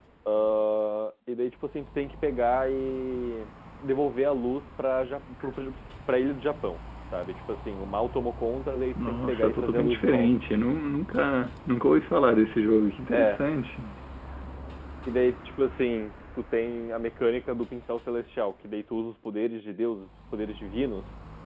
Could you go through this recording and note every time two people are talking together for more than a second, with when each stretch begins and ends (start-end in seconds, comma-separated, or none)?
9.1-10.3